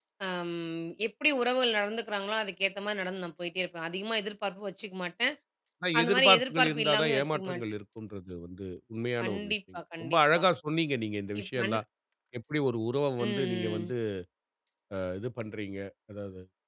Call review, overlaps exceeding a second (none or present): present